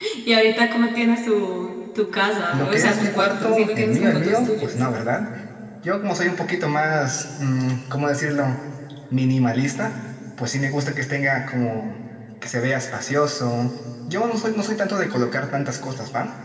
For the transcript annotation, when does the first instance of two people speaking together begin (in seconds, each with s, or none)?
2.5 s